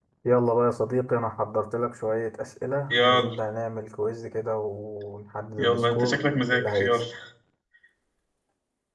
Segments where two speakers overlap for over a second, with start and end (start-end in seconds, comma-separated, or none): 5.6-7.0